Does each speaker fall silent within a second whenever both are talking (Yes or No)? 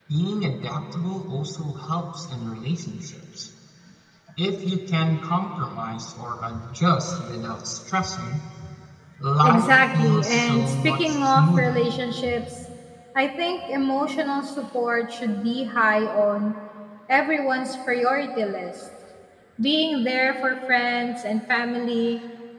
No